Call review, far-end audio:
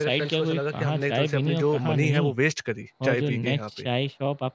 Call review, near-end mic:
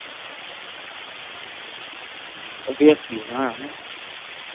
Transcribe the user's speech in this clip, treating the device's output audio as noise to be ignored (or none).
ऑब्वियसली हाँ, हाँ।